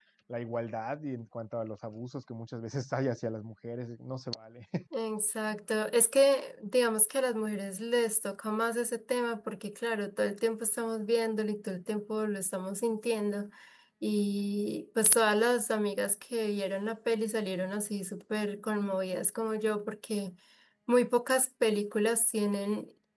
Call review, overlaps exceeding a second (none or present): none